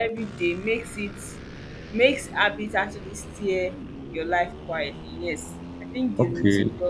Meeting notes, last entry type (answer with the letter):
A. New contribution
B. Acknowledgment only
A